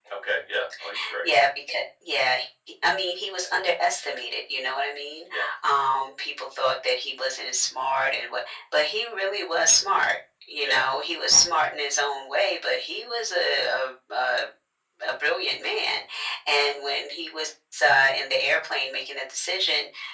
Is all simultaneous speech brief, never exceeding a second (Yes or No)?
Yes